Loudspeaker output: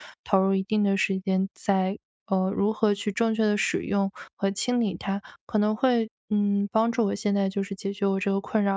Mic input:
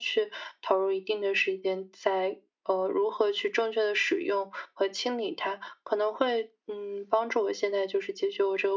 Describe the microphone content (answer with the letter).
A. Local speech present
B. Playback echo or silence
B